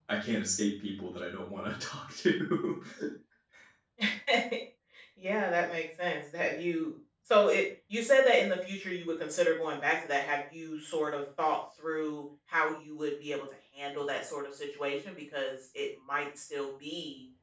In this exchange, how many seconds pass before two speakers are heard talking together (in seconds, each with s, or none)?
none